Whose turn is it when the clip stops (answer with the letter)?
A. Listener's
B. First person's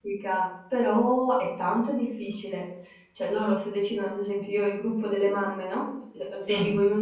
B